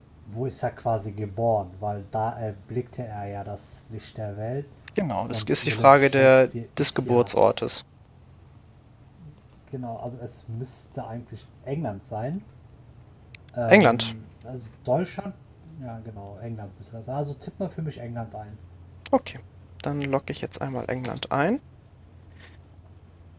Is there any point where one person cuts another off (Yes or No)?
Yes